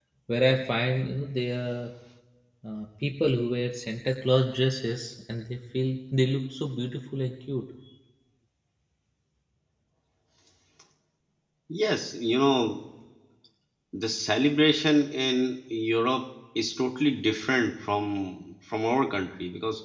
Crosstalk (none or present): none